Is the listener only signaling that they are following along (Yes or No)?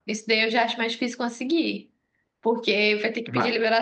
Yes